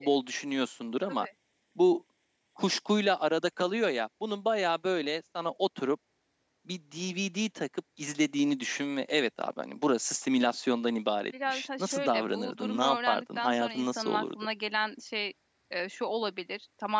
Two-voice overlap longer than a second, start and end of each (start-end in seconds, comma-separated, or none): 11.5-14.2